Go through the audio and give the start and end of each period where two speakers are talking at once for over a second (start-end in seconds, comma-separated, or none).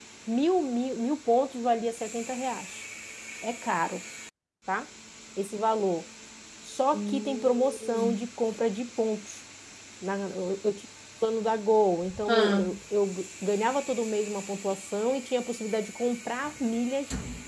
6.9-8.2